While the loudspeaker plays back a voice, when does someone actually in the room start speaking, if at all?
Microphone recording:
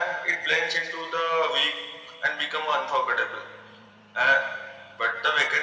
none

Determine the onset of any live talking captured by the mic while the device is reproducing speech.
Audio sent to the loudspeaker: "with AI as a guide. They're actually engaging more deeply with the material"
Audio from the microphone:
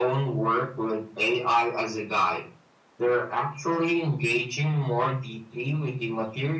none

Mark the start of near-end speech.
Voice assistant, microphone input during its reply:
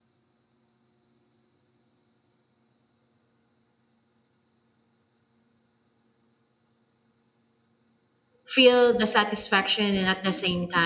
8.5 s

